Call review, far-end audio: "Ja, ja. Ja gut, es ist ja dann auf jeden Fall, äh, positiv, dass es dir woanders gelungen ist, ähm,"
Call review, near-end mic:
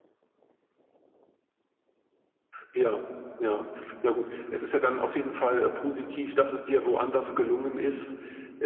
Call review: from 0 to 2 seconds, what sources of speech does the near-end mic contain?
neither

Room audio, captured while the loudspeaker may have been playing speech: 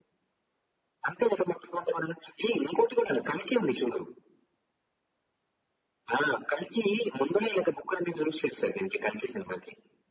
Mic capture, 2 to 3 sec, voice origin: echo only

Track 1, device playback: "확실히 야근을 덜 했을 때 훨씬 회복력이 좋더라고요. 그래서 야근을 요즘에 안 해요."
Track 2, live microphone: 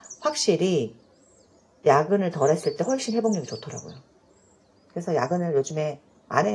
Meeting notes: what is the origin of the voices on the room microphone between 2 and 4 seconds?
echo only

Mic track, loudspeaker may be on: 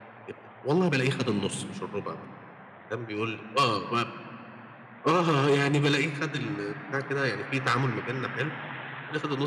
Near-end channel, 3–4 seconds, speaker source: echo only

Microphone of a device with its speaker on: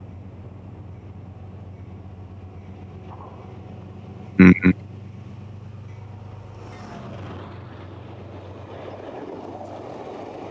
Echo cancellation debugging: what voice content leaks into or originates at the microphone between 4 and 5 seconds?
user only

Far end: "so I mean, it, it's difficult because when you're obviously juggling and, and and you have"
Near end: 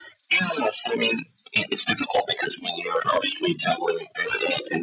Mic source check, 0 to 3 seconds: echo only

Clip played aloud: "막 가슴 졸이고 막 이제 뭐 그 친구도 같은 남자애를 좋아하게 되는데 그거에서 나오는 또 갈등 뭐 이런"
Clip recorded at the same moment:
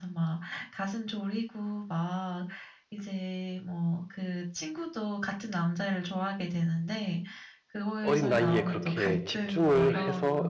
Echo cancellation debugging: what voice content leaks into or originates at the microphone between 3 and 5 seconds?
echo only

